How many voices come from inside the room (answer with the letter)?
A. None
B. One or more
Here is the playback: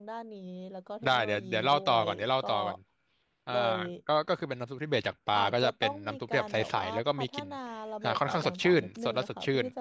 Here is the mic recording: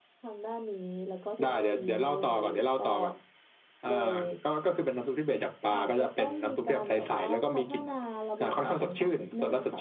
A